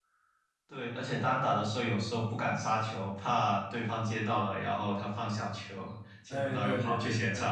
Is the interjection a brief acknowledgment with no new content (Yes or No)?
No